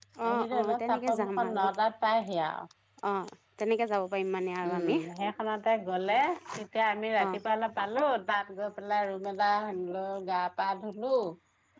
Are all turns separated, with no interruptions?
No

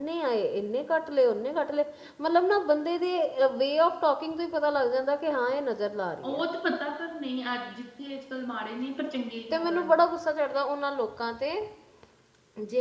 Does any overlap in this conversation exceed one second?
No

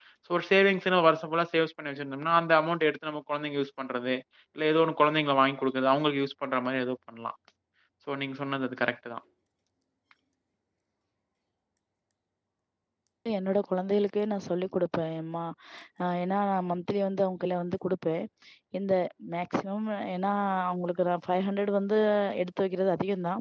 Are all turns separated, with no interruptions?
Yes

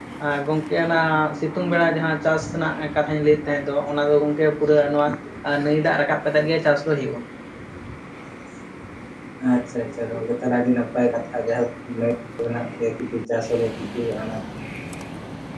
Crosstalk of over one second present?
No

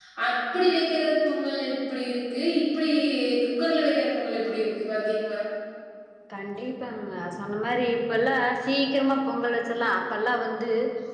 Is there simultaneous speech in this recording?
No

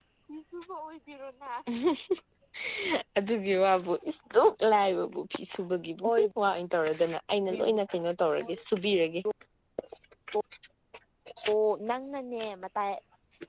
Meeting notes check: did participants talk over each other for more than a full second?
No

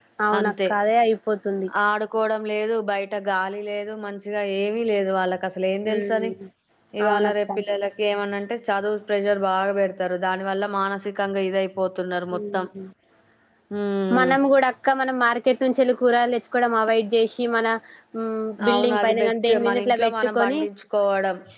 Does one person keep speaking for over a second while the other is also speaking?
Yes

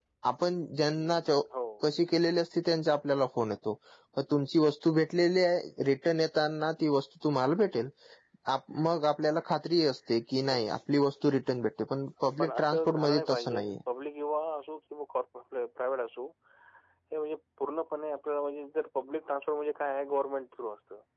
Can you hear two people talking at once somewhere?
Yes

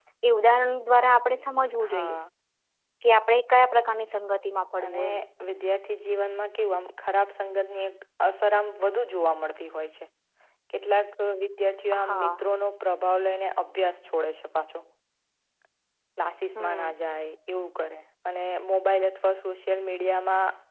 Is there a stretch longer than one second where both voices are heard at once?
No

